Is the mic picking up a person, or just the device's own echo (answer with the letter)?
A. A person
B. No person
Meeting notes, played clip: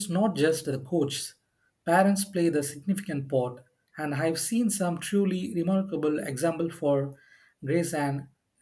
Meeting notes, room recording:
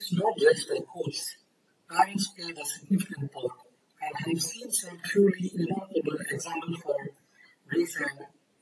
B